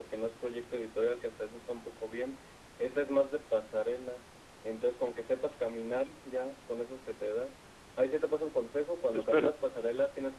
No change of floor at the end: Yes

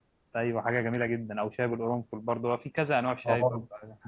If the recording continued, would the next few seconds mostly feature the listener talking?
Yes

